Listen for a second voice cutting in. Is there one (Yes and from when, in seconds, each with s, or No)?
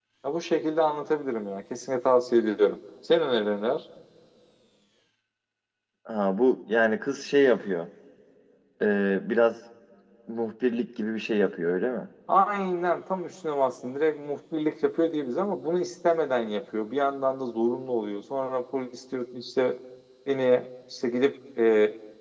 No